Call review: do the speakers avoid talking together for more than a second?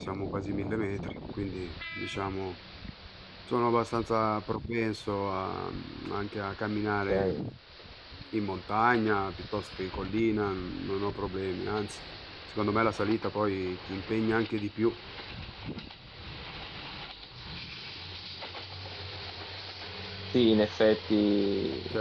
Yes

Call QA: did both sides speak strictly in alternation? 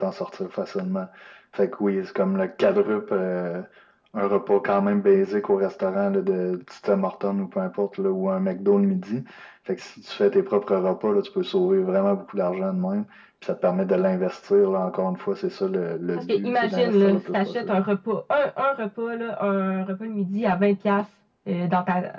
No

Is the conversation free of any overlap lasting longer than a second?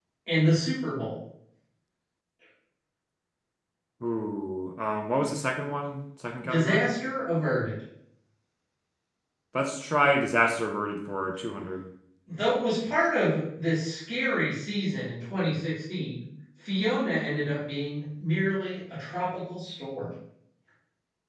Yes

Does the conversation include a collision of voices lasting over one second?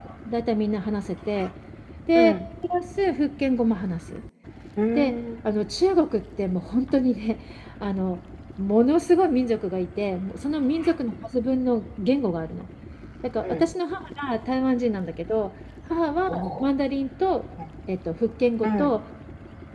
No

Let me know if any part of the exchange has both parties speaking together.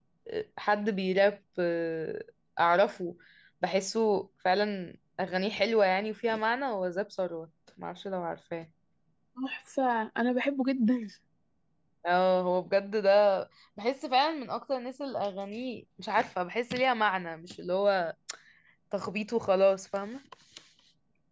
No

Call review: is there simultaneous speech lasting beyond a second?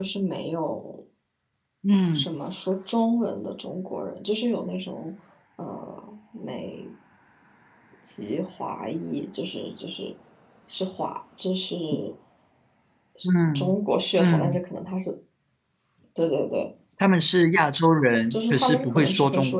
Yes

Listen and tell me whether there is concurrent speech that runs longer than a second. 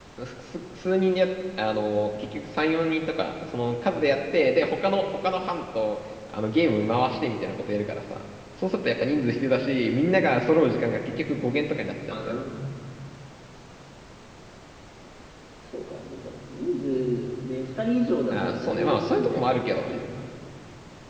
Yes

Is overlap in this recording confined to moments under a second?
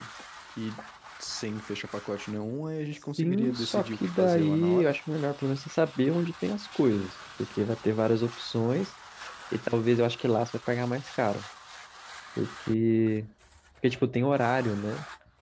No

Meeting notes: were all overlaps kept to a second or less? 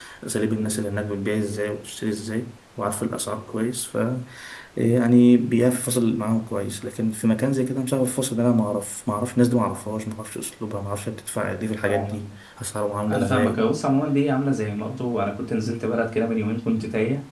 Yes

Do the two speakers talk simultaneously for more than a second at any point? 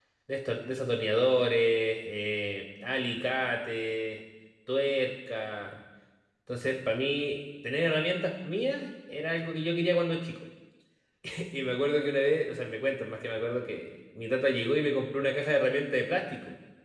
No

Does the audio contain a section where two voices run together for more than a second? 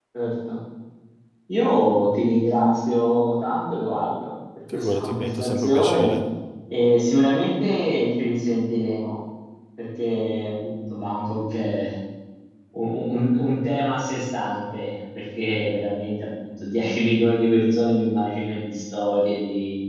Yes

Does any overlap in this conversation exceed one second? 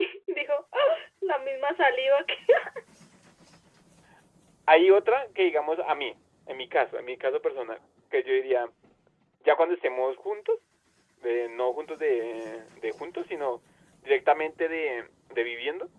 No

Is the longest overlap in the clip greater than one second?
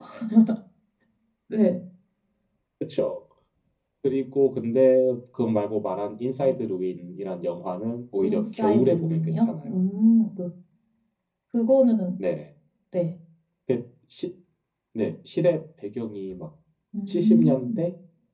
Yes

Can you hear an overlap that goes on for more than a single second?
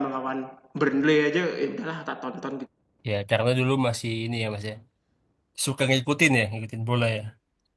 No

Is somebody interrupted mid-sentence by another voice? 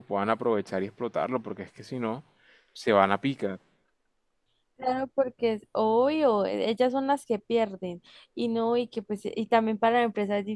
No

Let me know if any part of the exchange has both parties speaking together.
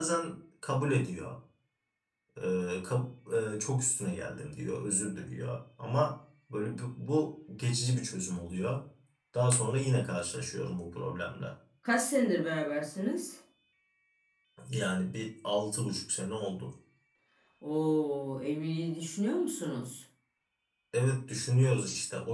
No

